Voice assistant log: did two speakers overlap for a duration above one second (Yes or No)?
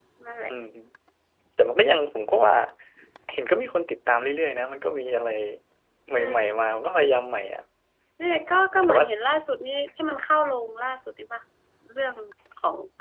No